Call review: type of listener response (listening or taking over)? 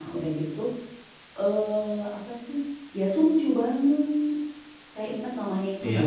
listening